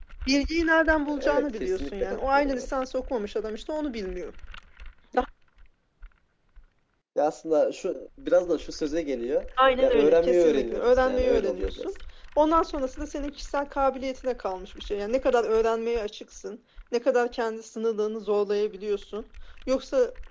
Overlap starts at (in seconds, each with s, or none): 1.1 s